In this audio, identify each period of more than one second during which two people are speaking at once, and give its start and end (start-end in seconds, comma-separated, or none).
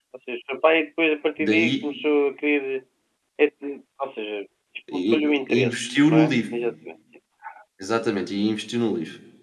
4.9-6.4